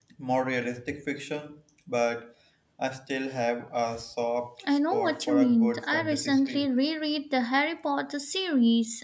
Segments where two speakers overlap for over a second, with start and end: 4.7-6.7

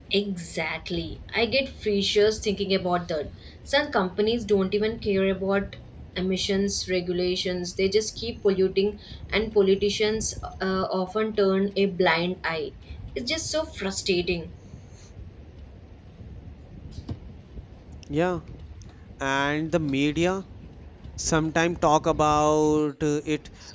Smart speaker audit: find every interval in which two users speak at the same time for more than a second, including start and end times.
none

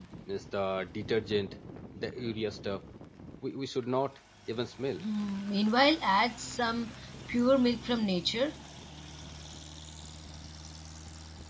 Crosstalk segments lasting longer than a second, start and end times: none

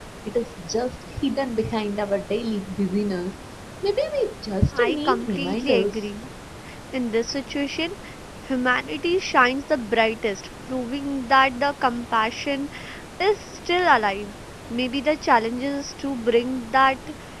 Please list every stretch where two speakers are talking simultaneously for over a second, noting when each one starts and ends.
4.7-6.0

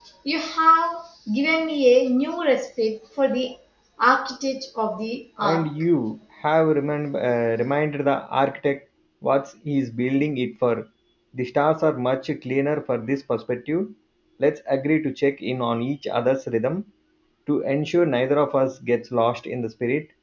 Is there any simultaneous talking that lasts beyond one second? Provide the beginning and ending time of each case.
none

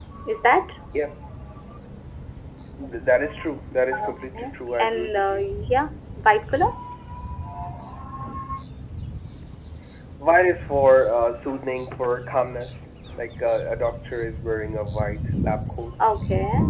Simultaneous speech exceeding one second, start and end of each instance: 4.1-5.4

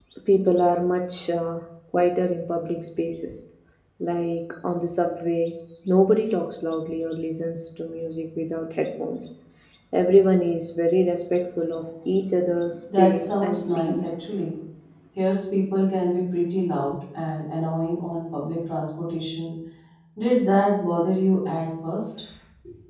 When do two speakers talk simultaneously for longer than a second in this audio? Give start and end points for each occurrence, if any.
13.0-14.3

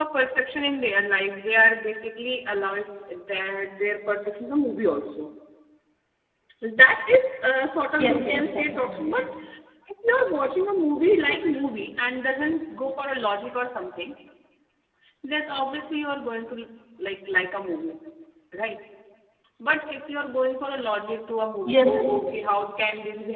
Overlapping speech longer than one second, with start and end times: 8.0-9.2

